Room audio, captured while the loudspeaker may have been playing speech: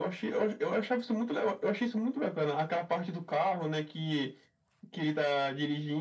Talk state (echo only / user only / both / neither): echo only